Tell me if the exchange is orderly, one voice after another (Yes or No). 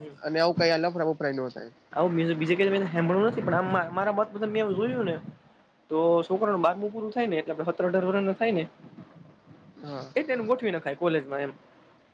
Yes